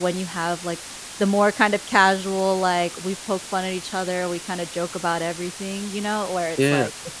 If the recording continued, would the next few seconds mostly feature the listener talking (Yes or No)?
No